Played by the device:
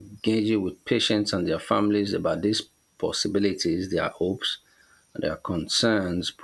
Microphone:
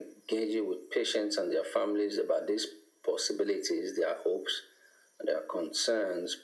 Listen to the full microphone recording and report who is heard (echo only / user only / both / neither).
echo only